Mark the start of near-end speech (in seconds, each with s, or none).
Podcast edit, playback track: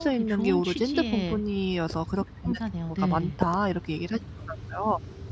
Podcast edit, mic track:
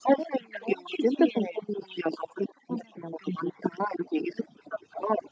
none